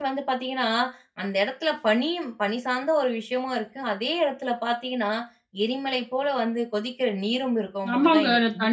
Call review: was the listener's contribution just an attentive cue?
No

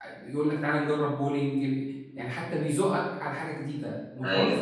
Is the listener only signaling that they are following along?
Yes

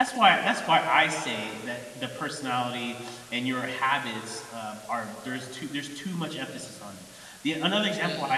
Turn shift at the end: No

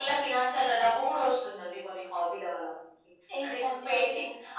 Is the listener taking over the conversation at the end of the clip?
No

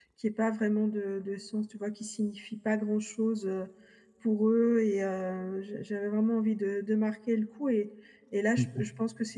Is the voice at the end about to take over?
No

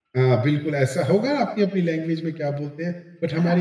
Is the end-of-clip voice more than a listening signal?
No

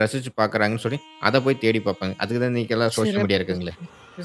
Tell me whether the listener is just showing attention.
No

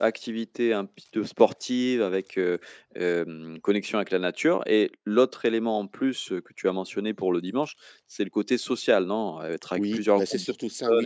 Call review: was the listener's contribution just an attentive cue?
No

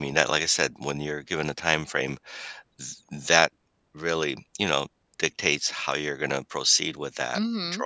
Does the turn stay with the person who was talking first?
No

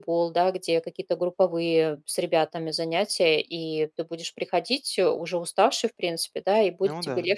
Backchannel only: Yes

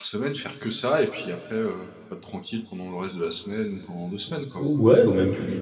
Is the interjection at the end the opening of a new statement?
Yes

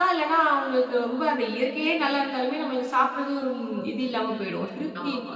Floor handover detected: Yes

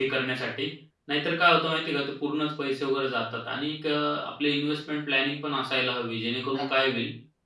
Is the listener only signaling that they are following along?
Yes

